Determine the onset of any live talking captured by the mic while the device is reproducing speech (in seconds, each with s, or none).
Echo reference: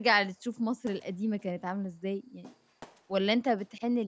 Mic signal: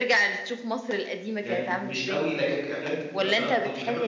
1.4 s